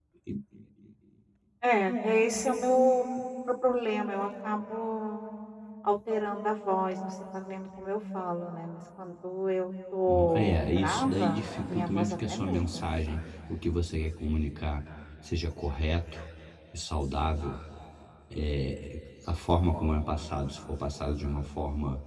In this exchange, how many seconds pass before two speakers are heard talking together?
10.1 s

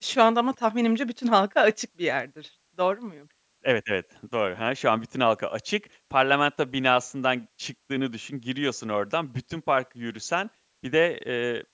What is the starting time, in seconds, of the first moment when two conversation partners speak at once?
none

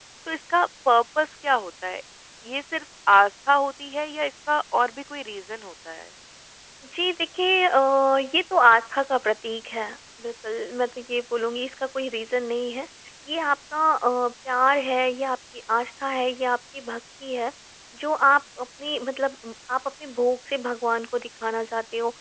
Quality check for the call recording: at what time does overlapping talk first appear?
none

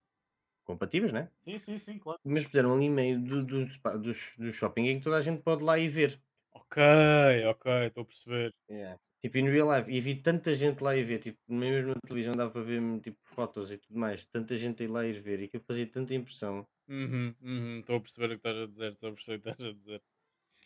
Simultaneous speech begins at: none

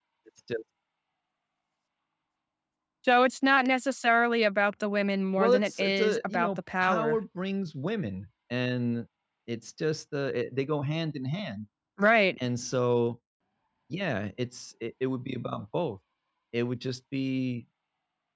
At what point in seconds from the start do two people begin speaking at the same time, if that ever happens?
5.4 s

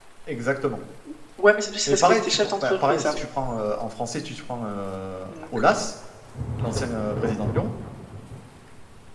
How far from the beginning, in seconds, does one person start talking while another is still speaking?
1.9 s

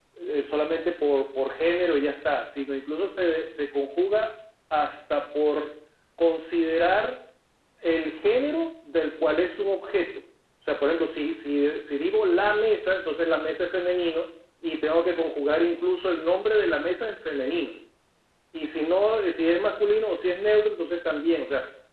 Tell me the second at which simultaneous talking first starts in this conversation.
none

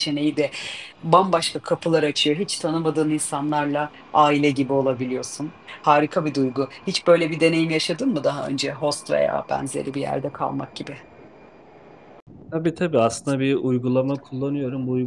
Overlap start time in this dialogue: none

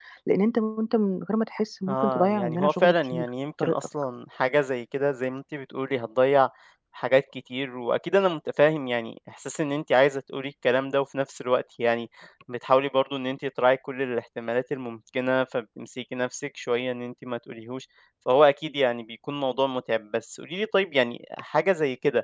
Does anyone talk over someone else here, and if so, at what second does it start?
1.9 s

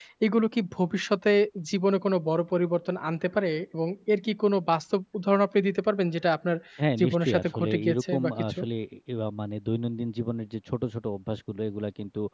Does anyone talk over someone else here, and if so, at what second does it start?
7.0 s

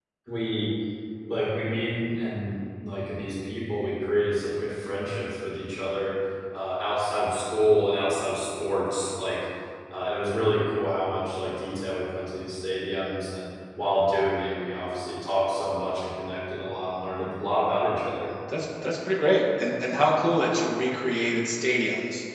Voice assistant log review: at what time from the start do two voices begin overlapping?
none

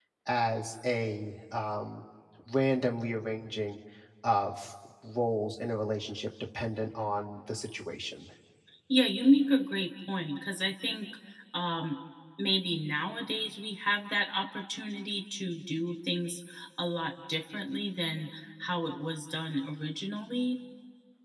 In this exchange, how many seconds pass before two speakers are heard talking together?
none

